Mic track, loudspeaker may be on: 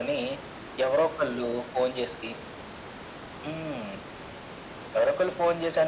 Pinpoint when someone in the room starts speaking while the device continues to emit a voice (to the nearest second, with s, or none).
none